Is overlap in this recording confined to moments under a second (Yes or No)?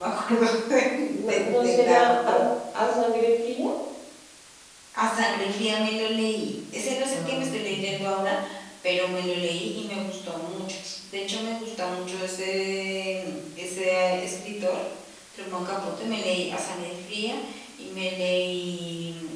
No